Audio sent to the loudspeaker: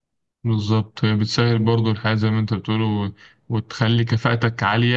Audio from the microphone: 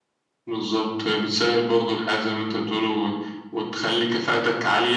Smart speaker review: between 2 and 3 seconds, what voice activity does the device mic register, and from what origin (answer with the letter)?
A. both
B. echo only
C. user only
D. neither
B